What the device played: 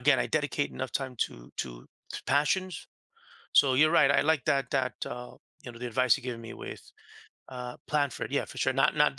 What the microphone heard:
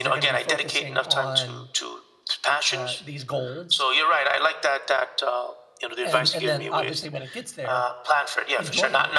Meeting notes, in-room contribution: present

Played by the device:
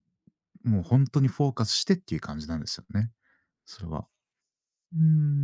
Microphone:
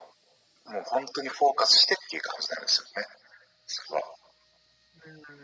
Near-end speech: none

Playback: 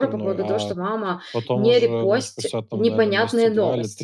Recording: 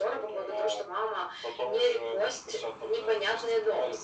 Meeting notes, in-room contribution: none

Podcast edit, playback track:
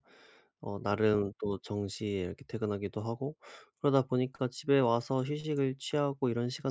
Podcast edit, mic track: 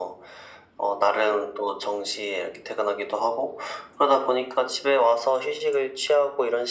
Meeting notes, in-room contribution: none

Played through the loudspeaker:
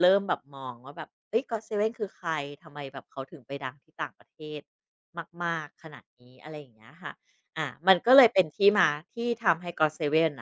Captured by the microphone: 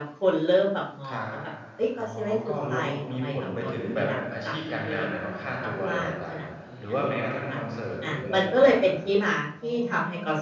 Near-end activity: present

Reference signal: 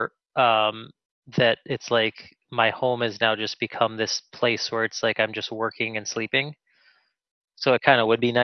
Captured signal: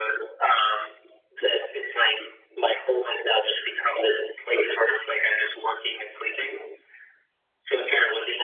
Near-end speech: none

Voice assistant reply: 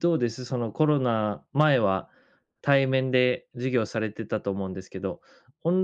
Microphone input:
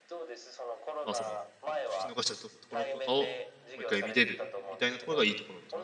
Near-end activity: present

